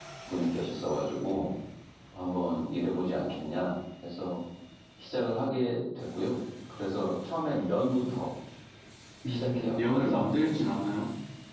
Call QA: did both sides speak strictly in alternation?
No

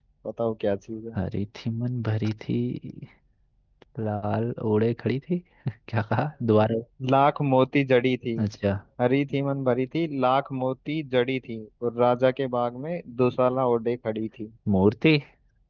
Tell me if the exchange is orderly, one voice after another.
Yes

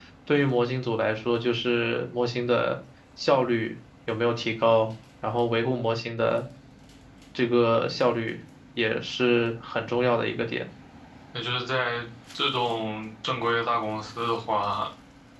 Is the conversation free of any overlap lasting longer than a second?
Yes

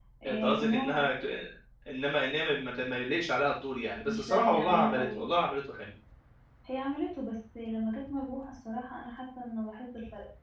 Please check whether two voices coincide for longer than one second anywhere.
Yes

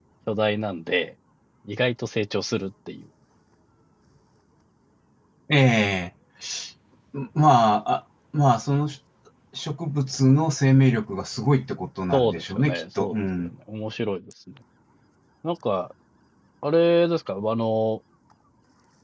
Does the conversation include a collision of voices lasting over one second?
Yes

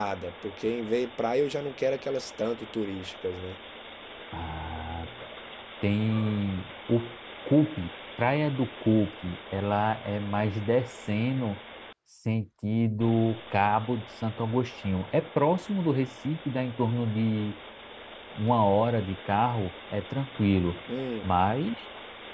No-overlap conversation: Yes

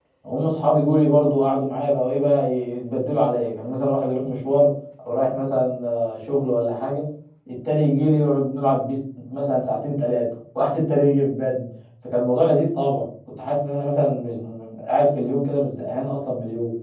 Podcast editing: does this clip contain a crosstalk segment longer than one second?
No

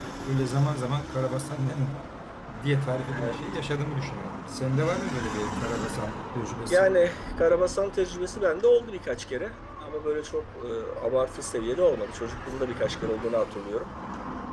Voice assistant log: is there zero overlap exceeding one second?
Yes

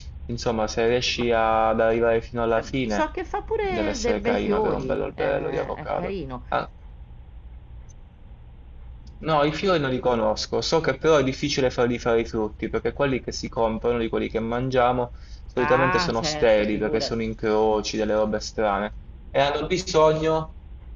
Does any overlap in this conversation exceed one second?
Yes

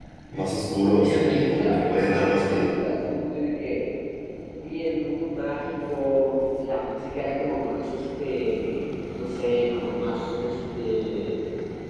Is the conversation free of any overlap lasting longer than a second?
No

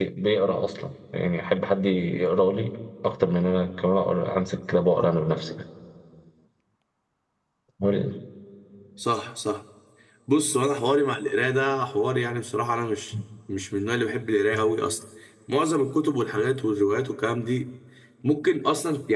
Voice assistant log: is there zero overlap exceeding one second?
Yes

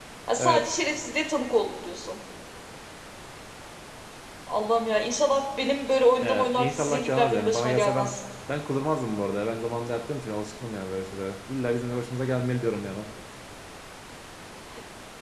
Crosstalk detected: Yes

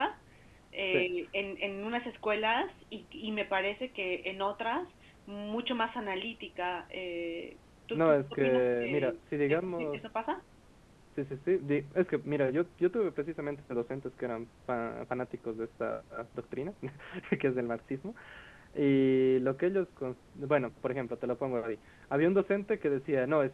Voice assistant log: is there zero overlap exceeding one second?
No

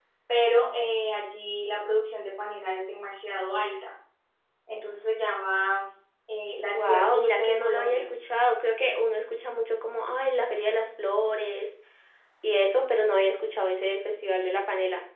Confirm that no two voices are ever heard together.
No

